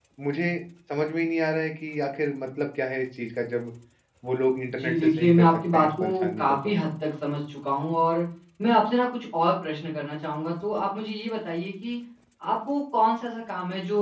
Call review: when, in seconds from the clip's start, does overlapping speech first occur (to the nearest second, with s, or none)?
5 s